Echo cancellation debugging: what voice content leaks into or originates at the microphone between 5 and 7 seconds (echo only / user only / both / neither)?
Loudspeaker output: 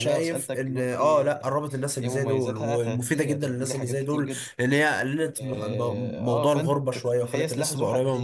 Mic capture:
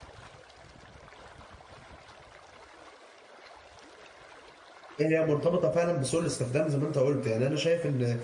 user only